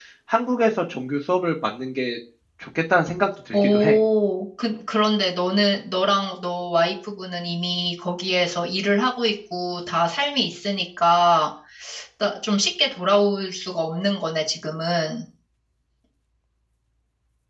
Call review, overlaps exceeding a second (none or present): none